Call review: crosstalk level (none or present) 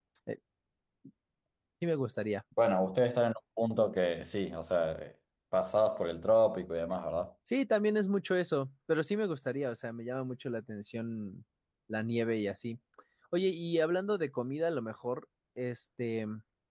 none